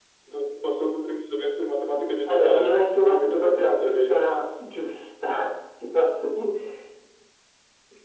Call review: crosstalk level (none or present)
present